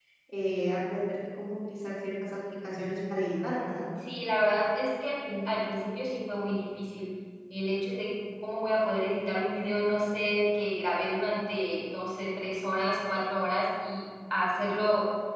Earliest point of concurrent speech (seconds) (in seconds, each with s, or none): none